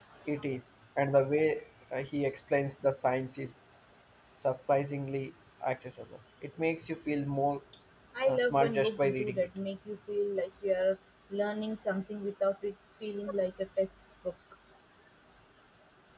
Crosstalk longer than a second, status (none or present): present